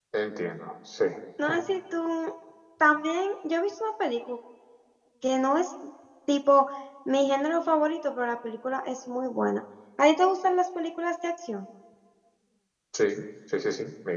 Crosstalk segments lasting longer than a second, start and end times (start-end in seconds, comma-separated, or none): none